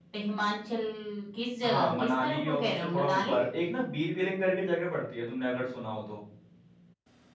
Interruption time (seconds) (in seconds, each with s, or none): 1.6 s